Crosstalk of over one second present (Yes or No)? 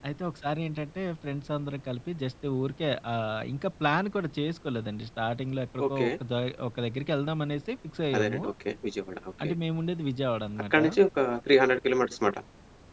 No